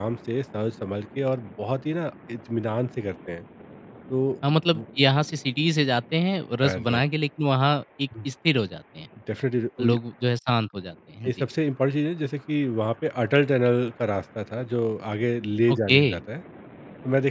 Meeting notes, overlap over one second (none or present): none